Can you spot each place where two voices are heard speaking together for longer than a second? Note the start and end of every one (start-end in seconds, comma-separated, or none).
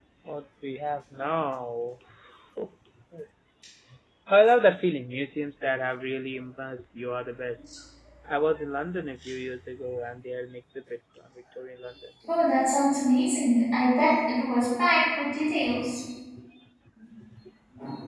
none